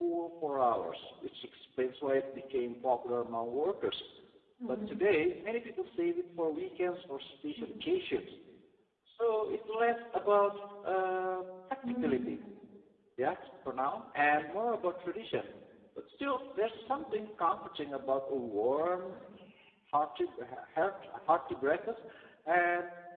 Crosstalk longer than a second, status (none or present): none